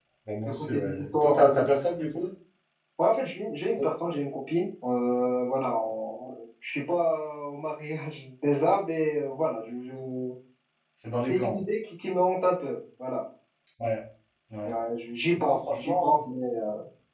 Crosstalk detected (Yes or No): Yes